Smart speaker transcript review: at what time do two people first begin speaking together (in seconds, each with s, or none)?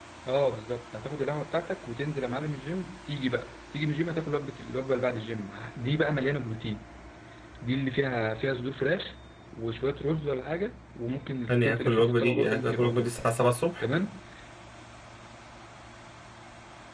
11.5 s